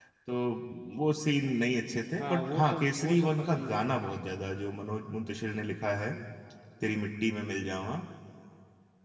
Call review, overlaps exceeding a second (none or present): present